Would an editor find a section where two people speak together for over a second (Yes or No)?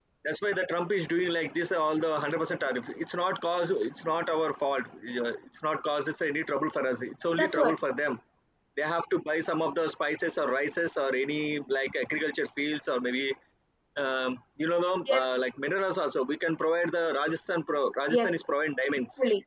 No